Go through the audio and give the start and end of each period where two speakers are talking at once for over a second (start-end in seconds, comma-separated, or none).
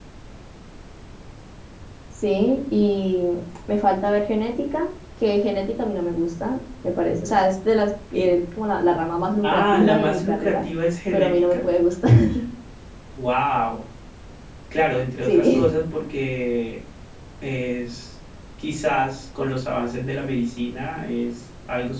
9.4-10.6